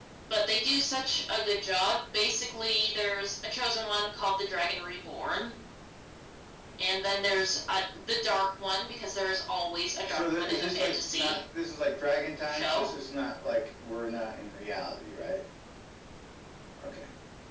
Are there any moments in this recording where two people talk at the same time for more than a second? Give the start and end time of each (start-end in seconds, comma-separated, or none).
10.1-11.4